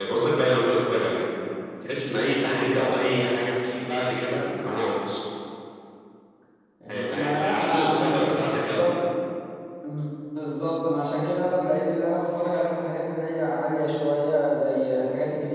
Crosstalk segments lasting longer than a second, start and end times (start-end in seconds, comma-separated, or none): 7.1-9.0